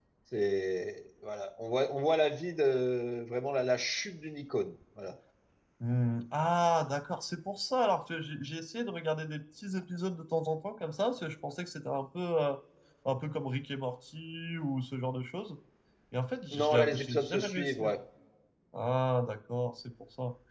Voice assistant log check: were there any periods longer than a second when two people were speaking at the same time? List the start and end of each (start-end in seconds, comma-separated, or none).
16.5-17.8